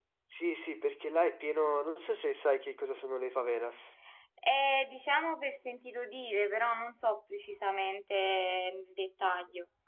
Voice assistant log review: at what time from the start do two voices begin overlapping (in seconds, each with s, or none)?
none